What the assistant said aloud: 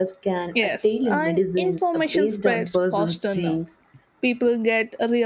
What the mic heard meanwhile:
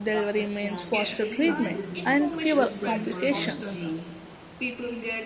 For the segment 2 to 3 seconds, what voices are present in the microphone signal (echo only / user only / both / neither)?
both